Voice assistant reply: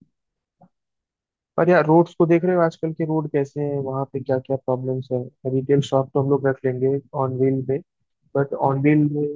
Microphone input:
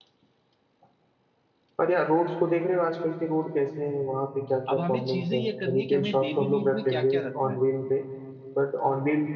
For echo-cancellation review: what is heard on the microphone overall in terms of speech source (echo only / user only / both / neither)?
both